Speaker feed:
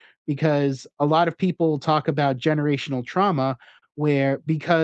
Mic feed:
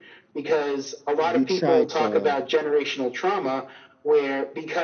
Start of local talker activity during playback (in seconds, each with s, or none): 1.2 s